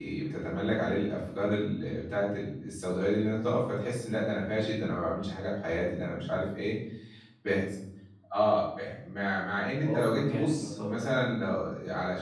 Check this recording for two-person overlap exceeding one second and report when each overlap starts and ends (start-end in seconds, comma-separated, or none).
9.8-11.4